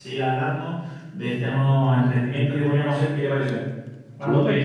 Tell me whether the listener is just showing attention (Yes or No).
No